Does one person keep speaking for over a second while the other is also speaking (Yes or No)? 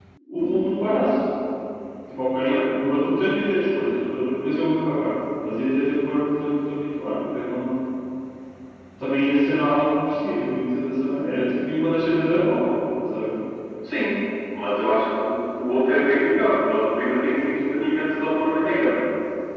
No